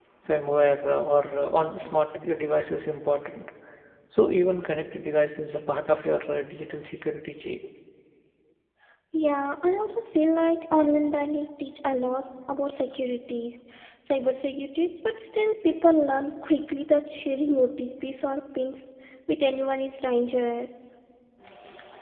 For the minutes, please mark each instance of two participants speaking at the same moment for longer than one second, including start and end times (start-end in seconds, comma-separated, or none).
none